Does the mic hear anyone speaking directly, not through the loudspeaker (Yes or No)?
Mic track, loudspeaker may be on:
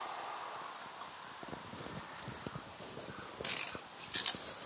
No